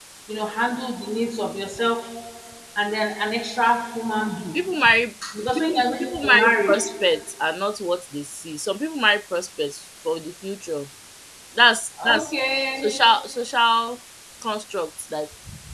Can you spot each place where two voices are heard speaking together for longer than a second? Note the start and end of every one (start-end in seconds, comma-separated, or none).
5.4-6.8